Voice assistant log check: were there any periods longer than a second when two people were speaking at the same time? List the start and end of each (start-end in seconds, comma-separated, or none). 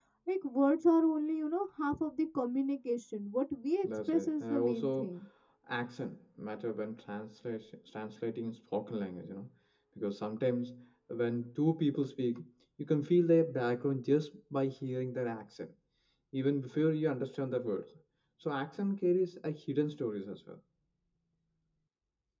3.8-5.1